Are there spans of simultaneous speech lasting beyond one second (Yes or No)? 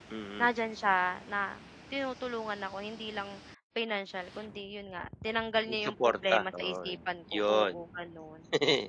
Yes